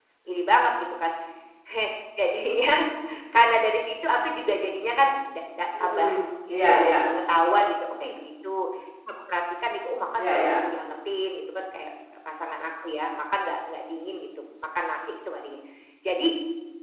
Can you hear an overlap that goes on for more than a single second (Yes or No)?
No